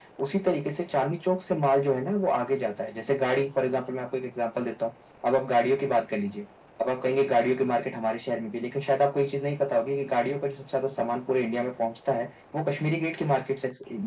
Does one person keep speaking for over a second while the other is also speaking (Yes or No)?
No